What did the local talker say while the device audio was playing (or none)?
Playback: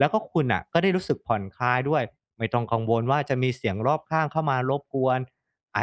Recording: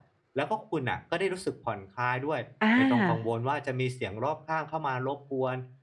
อา